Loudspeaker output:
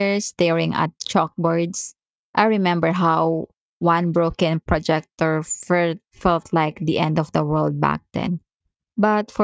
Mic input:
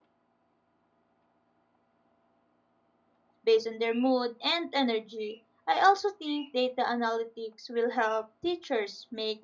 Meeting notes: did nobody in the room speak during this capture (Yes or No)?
No